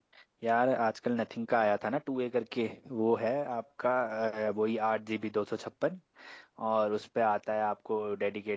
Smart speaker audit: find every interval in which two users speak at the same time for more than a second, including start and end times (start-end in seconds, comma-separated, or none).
none